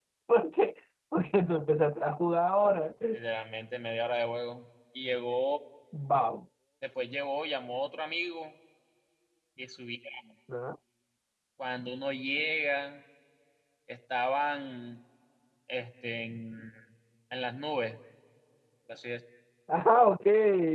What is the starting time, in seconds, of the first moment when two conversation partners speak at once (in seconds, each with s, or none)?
none